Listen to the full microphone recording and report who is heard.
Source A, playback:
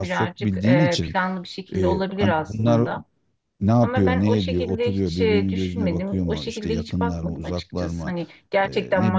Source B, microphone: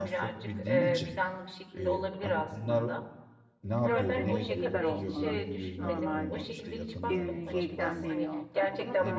both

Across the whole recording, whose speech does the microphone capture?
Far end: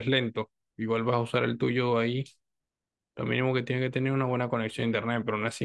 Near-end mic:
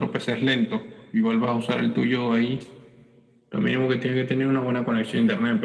echo only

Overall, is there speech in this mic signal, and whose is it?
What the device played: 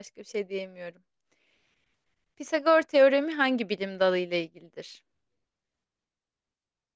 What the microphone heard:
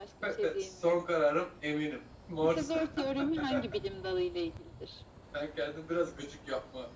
both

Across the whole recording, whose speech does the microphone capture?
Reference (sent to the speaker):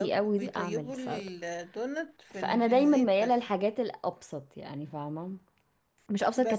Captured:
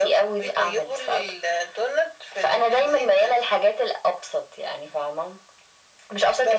echo only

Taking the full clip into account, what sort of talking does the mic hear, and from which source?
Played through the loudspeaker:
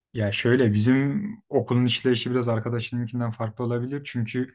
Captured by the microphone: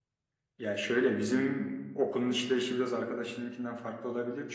echo only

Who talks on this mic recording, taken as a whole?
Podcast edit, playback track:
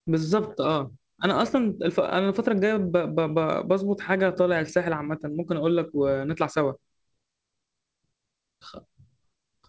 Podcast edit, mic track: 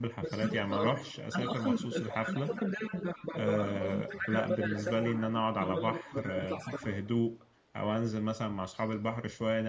both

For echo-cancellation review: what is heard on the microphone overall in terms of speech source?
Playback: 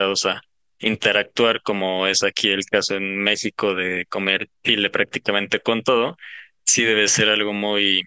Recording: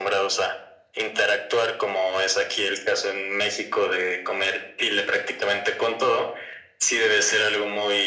echo only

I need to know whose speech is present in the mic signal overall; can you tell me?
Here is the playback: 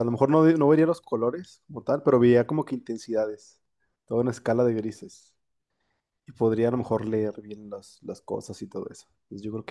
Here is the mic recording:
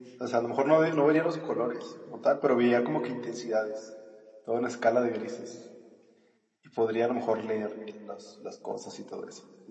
echo only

